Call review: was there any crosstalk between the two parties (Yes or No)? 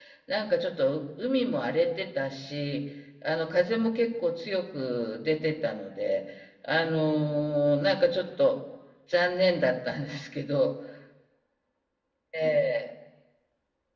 No